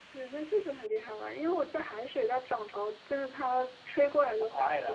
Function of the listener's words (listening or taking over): taking over